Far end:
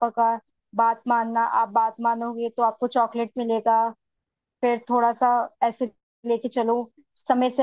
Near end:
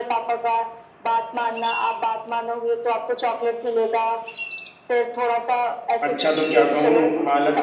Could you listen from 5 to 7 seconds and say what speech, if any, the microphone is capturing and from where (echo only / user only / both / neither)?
both